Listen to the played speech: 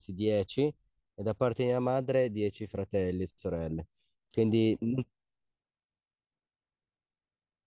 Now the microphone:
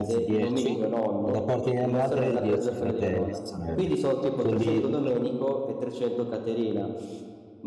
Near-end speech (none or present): present